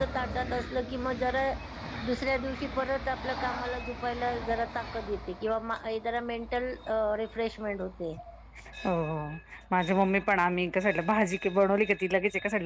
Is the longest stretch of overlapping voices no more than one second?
Yes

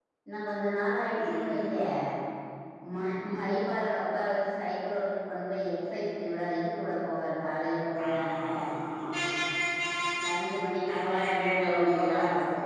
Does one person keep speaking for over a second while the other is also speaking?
Yes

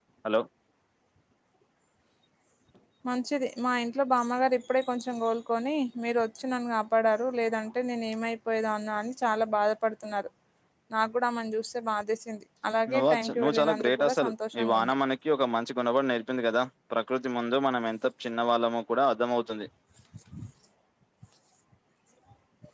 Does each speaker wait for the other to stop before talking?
No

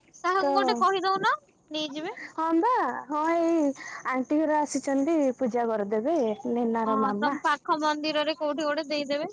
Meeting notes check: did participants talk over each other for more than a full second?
No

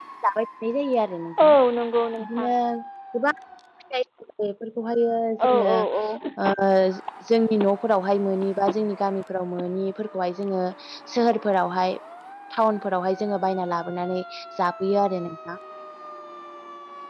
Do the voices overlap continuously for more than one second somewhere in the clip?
No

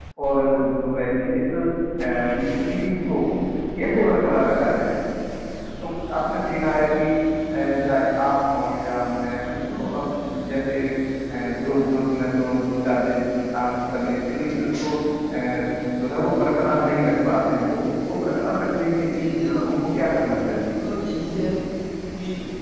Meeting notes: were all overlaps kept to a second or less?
Yes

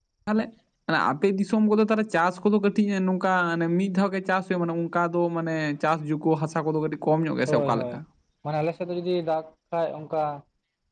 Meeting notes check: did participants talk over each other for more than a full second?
No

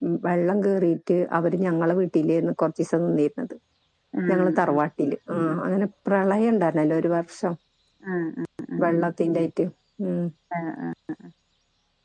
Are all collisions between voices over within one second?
Yes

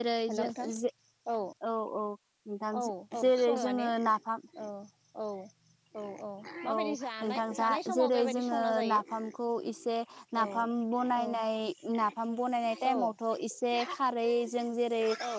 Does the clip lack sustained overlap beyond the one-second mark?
No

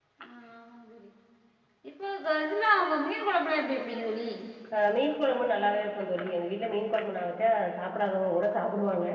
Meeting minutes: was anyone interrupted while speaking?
No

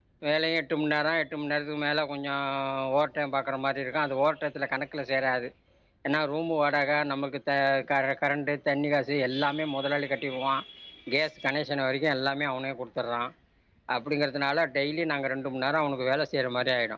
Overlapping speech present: No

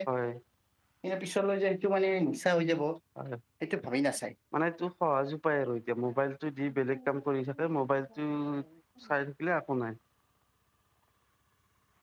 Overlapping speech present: No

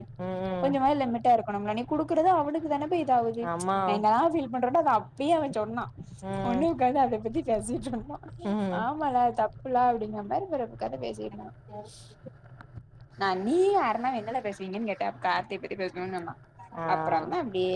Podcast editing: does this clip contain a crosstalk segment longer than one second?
No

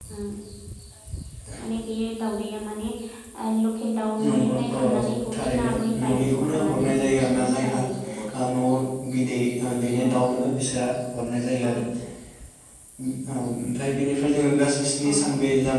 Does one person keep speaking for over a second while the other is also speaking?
Yes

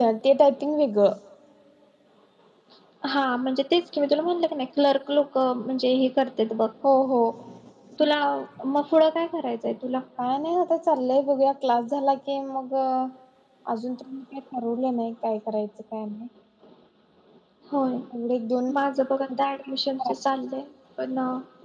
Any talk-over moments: No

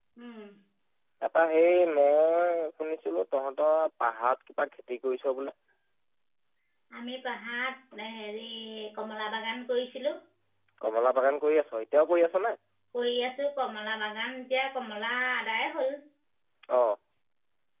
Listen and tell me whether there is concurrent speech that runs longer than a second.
No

